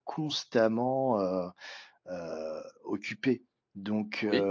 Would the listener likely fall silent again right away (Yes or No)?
Yes